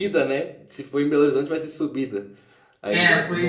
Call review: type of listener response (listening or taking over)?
taking over